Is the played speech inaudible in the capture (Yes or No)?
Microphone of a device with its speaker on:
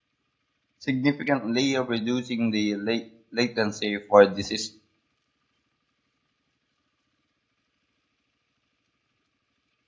Yes